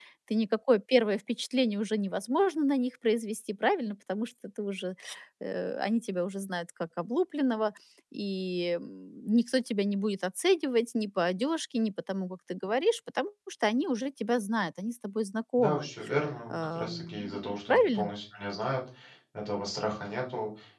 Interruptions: present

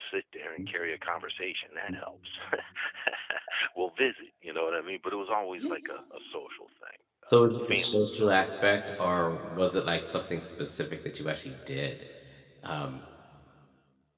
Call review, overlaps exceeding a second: present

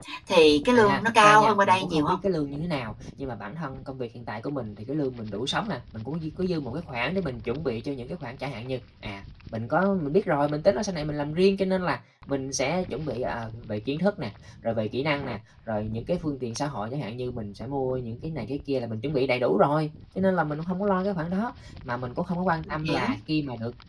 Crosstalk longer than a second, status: present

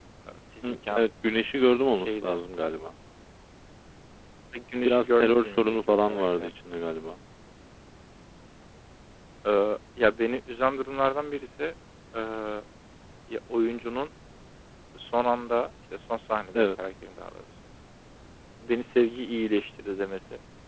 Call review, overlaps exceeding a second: present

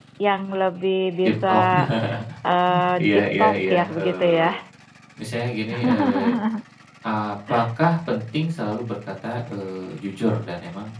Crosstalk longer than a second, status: present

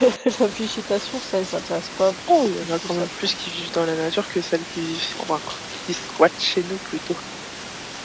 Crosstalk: present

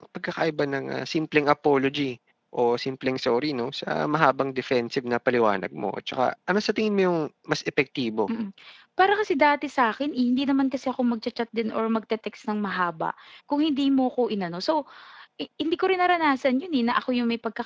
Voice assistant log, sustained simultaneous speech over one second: none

